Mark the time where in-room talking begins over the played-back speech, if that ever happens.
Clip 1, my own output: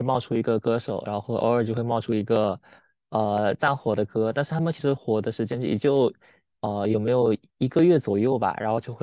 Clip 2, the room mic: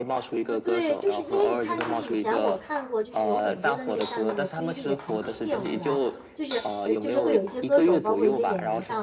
0.5 s

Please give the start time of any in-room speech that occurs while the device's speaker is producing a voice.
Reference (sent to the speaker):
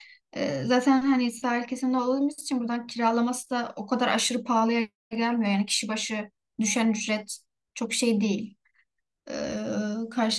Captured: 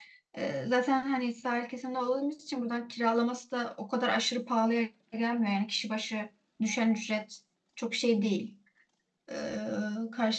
none

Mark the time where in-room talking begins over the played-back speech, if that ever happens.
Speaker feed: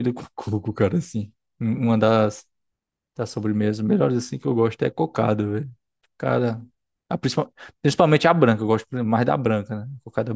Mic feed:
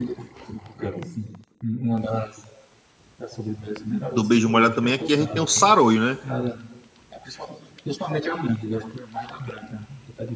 4.1 s

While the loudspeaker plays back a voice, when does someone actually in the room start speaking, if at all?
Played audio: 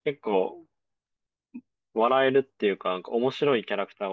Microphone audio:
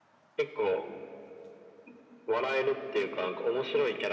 none

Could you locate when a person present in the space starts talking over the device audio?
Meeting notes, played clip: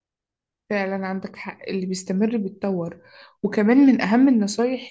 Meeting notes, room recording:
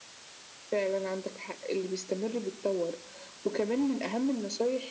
none

